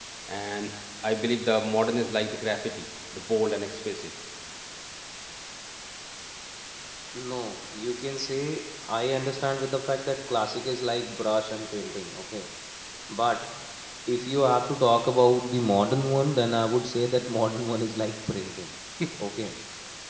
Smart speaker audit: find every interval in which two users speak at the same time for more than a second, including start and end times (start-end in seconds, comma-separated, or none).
none